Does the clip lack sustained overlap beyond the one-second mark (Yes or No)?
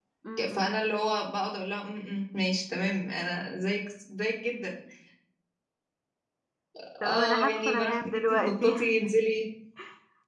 No